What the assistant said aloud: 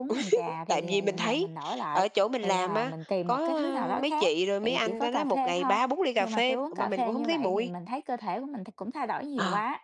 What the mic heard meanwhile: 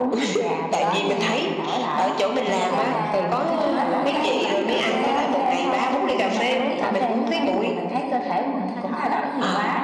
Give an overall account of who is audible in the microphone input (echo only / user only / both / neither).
both